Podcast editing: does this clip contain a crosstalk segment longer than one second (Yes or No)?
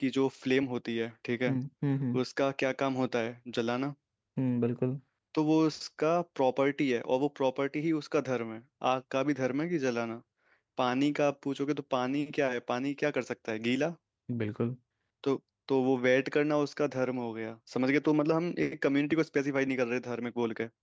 No